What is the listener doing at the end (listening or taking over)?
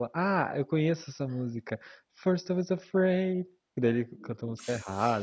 taking over